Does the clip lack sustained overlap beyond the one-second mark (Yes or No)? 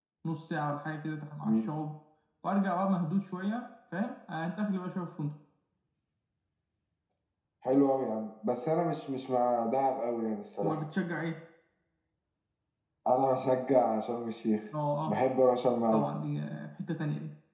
Yes